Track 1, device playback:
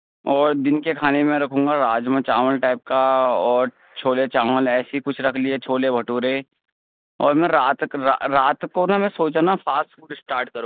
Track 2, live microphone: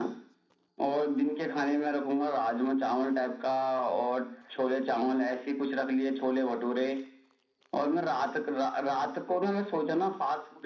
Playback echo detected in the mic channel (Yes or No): Yes